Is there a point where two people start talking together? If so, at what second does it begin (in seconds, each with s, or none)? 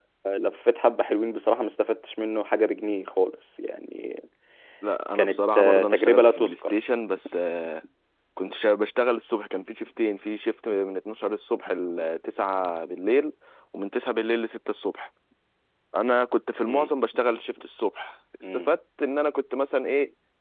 5.2 s